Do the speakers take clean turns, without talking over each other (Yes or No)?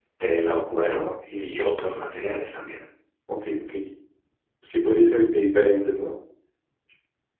Yes